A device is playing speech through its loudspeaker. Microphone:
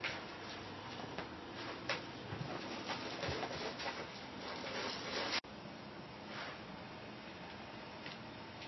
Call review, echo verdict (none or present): none